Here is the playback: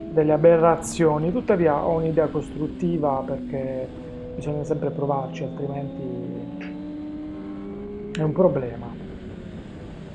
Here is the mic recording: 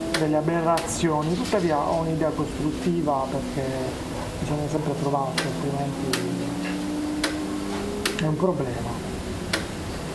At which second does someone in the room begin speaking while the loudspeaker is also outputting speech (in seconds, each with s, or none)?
none